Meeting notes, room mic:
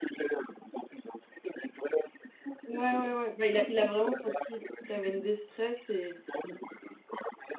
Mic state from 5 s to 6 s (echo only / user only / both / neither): both